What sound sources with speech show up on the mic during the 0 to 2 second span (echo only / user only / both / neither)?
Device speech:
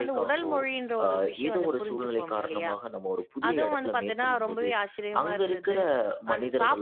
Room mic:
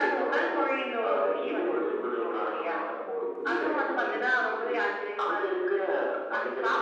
echo only